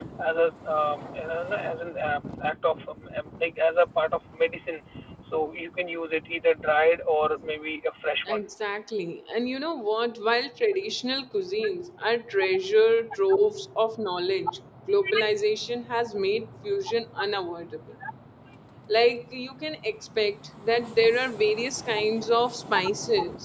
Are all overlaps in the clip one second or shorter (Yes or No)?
Yes